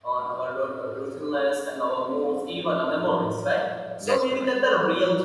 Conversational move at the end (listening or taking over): listening